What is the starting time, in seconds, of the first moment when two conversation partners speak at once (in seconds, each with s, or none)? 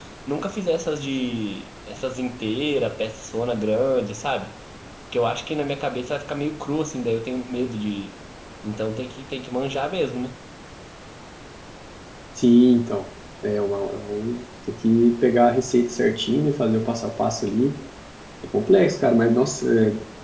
none